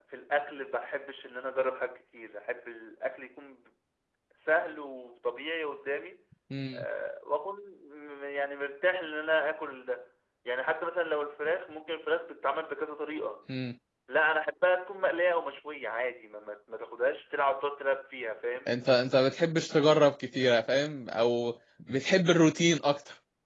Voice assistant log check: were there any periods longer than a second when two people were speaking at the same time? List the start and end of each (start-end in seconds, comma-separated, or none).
none